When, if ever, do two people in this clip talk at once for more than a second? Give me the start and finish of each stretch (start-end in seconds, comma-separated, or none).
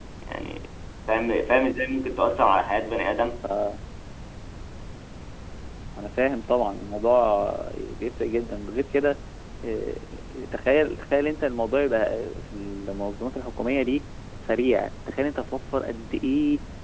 none